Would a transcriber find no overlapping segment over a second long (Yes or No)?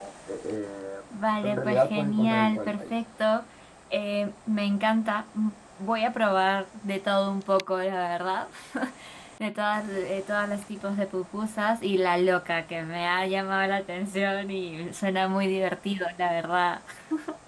No